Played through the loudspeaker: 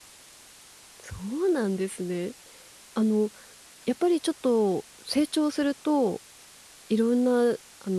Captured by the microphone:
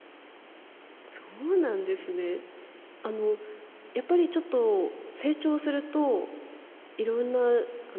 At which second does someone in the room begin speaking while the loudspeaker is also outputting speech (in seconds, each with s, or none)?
none